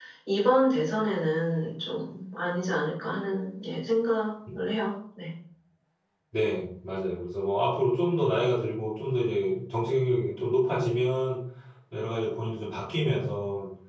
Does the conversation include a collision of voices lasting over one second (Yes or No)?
No